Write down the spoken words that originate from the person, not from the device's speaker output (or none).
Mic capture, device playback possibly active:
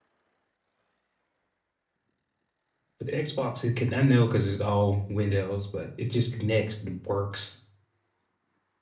But the Xbox, it can I know because it's all Windows, but it just connects. It works,